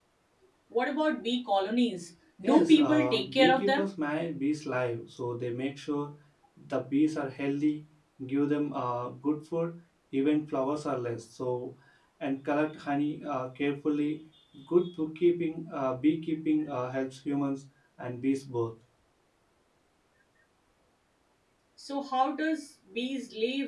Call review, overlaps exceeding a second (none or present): present